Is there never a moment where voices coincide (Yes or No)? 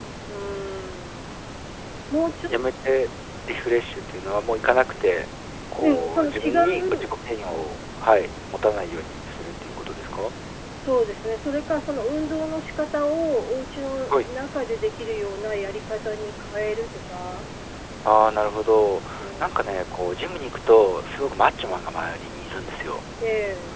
No